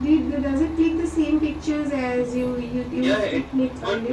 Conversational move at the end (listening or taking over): taking over